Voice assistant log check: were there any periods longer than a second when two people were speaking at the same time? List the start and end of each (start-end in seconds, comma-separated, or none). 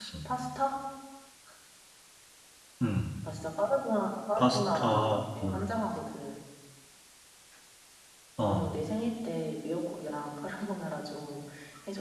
4.4-5.7